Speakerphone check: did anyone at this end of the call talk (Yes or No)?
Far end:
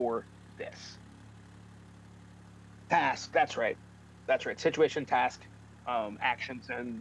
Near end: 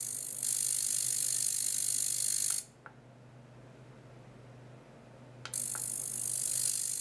No